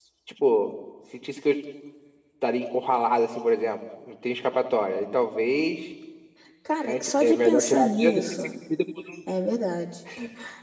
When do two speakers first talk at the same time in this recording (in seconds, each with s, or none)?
6.8 s